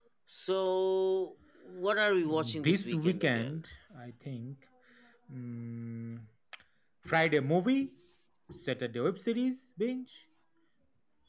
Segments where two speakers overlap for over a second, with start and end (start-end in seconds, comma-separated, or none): 2.2-3.6